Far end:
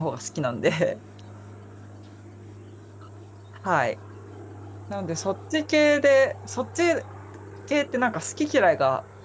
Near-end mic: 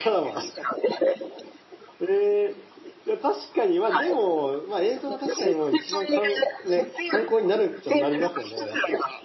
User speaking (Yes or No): Yes